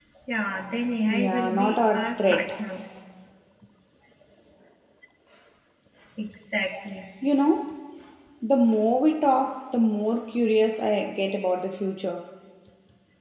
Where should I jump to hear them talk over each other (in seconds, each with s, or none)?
1.1 s